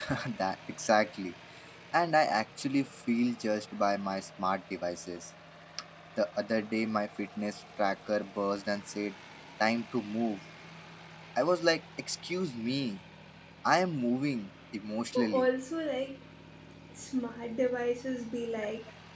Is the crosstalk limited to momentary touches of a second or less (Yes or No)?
Yes